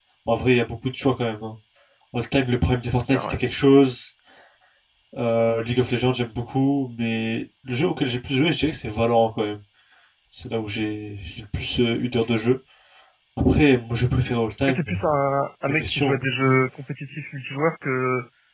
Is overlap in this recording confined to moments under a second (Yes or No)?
Yes